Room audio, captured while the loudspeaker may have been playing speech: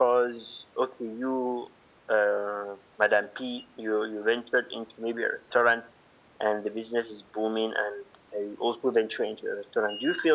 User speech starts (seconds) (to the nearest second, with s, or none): none